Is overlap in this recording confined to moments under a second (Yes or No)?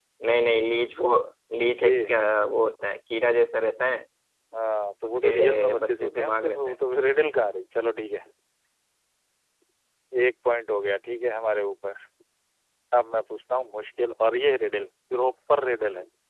No